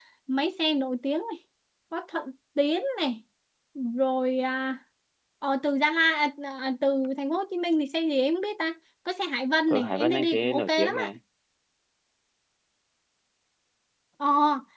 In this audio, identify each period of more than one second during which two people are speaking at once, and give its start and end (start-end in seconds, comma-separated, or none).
9.7-11.0